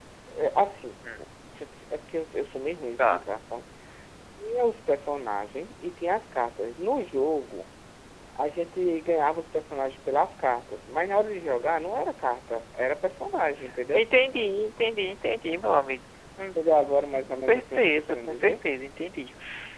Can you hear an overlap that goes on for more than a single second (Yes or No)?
Yes